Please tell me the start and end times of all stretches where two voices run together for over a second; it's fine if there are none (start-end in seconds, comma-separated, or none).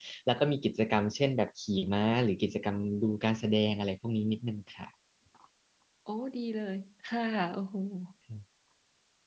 none